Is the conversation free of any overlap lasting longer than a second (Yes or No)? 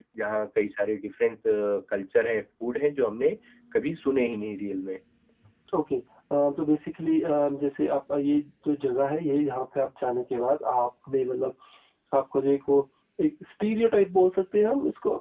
Yes